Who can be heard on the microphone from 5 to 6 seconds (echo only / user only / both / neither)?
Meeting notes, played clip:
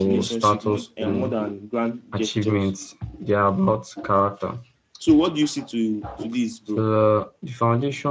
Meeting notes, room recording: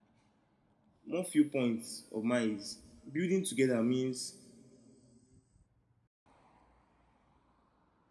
neither